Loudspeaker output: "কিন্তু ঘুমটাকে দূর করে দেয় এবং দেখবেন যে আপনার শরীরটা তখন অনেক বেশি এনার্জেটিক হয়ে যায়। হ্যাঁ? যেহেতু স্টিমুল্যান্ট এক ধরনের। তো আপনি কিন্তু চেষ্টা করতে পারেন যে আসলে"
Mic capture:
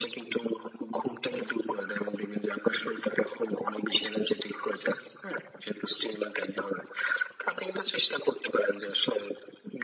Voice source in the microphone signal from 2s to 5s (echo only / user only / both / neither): echo only